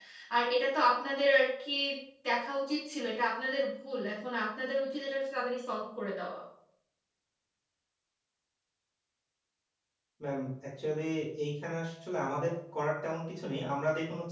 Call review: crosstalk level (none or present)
none